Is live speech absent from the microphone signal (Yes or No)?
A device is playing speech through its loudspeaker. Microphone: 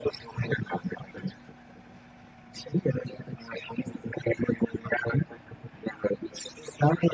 Yes